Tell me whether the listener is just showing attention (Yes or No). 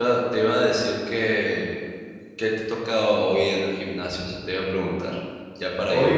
No